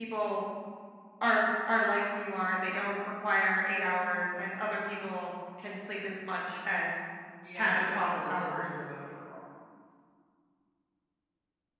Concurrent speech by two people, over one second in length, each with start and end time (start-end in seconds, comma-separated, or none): 7.6-8.8